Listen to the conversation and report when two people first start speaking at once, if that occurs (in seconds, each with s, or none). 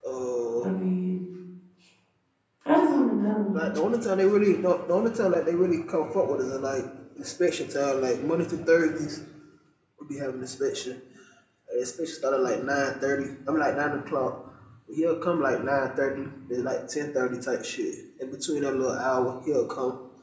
none